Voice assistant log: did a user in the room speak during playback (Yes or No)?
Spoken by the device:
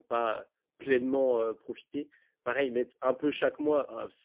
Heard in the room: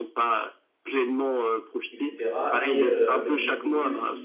Yes